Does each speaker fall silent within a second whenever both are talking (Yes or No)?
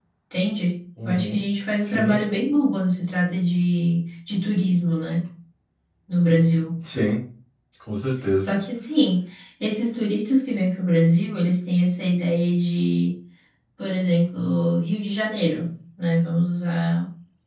Yes